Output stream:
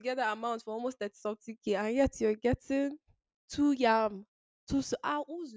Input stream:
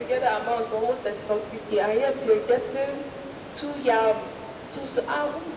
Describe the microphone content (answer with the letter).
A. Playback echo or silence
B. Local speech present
A